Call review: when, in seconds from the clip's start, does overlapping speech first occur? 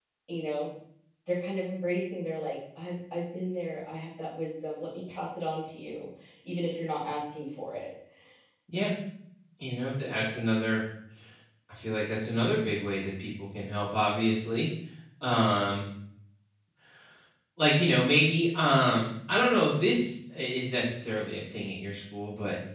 none

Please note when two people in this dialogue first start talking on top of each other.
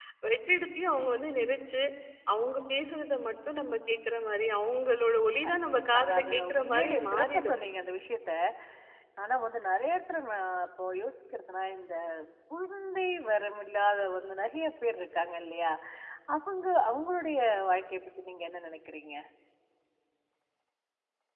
5 s

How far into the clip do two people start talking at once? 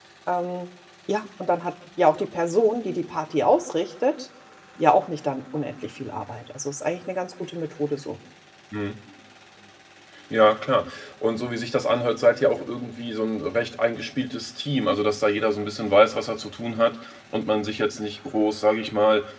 none

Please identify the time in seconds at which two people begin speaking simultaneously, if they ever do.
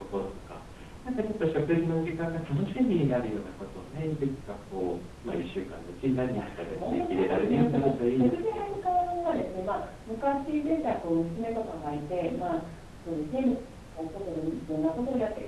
6 s

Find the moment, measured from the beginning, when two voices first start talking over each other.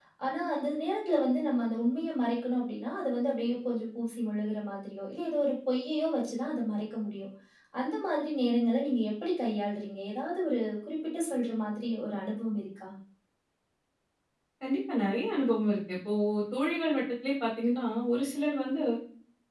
none

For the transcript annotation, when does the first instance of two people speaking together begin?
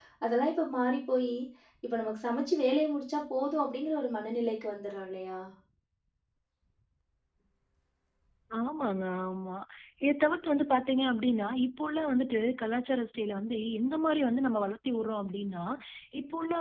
none

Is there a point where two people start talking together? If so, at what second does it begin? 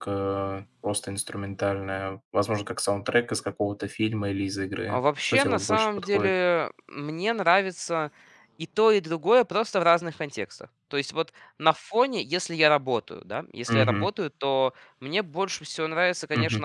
5 s

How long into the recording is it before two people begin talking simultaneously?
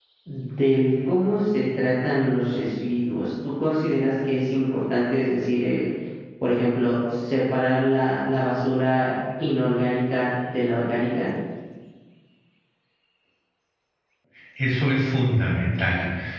none

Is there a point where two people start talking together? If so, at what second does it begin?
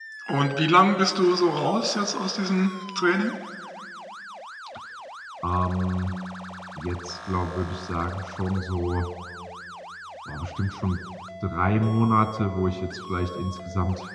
none

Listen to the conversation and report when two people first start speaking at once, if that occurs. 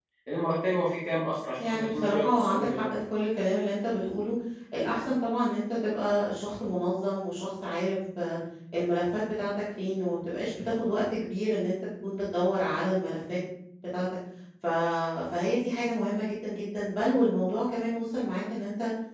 2 s

